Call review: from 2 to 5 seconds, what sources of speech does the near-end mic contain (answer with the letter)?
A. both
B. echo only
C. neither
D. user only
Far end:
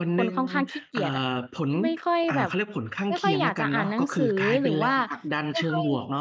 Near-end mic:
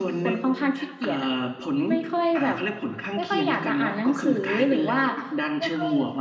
B